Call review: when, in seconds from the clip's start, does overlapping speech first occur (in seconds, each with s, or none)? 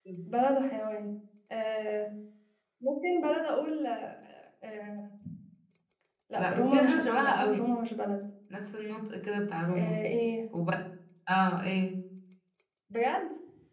6.3 s